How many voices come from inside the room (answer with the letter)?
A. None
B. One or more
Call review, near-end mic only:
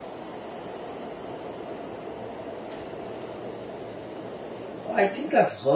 B